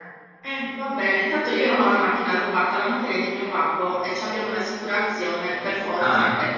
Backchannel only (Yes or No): No